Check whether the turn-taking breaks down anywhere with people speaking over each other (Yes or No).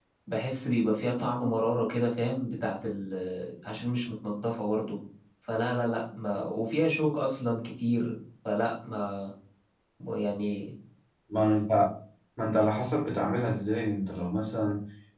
No